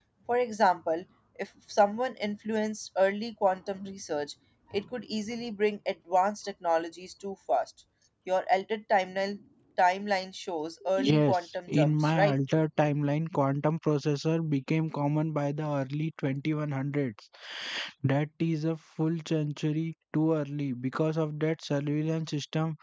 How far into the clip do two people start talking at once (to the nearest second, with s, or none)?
11 s